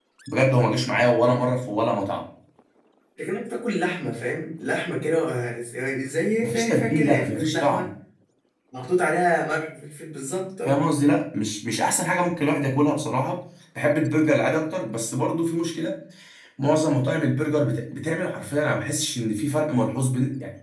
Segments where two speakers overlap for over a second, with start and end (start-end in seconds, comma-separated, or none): 6.4-7.9